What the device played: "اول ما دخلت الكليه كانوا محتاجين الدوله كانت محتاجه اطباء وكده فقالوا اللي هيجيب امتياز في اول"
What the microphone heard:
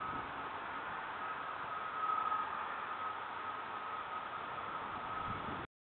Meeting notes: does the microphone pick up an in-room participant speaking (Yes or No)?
No